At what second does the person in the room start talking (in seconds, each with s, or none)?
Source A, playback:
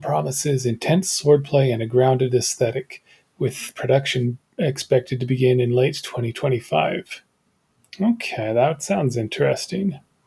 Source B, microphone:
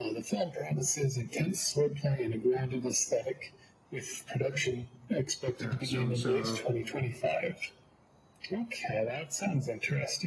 5.6 s